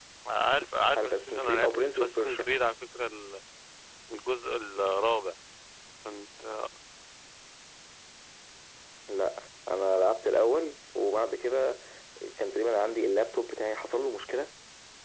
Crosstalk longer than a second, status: present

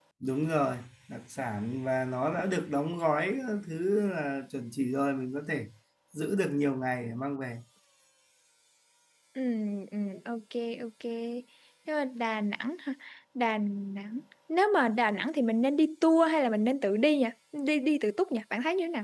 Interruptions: none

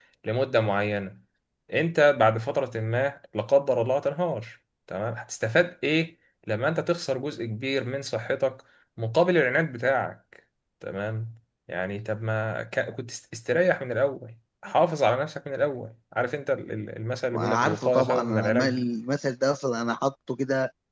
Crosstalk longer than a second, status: present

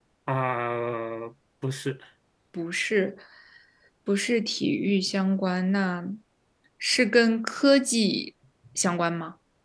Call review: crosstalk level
none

